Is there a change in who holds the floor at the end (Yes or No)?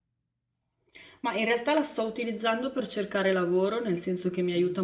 No